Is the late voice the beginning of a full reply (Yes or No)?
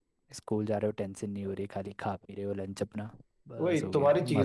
Yes